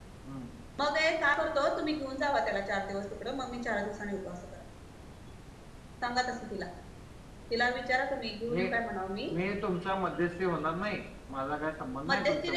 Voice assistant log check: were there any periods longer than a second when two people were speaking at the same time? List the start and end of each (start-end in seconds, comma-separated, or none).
none